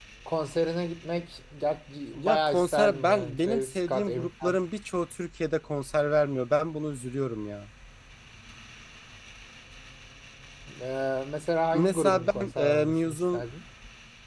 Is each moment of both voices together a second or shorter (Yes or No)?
No